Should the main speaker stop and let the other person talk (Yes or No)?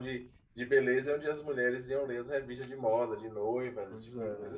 Yes